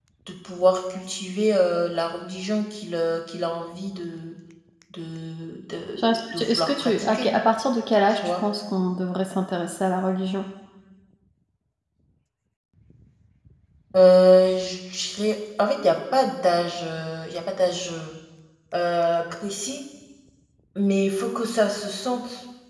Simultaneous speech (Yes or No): Yes